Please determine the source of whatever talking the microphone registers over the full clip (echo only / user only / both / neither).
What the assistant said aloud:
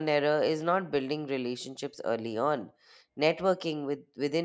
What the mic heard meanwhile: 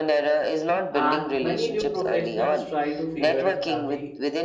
both